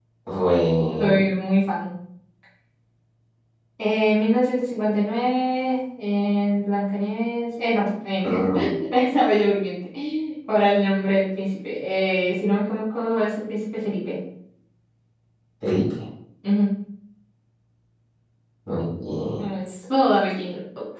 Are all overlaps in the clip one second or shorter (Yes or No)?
Yes